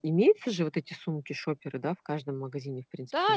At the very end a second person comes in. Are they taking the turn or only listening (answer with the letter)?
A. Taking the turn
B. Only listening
A